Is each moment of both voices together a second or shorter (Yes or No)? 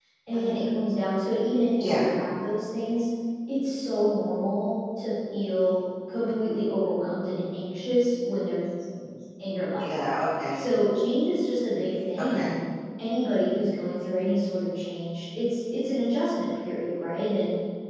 Yes